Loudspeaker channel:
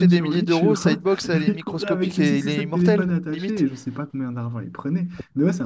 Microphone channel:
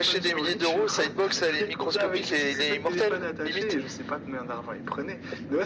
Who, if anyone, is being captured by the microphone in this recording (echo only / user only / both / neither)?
echo only